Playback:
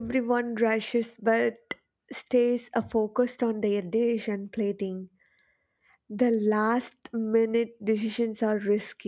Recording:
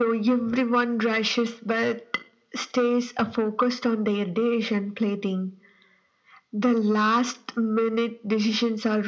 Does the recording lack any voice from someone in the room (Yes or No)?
Yes